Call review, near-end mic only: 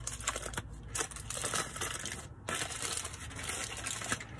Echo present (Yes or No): No